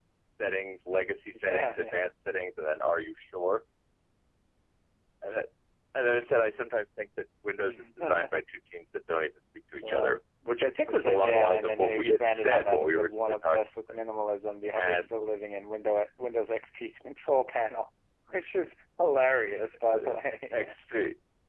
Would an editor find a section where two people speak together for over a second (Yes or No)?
Yes